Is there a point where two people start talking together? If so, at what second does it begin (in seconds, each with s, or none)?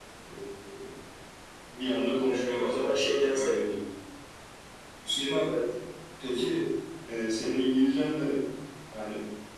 2.3 s